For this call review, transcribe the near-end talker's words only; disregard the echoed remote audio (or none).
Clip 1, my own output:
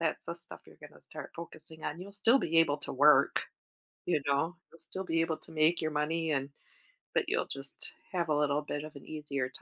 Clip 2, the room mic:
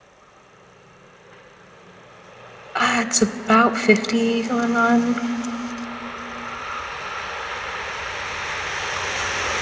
Uh, it's about 50 going on.